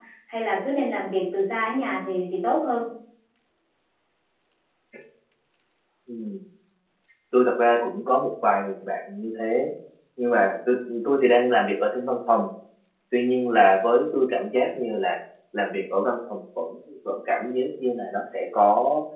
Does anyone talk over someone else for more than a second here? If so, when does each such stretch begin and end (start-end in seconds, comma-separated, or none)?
none